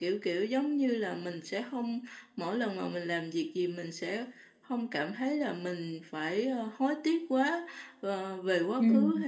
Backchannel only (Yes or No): Yes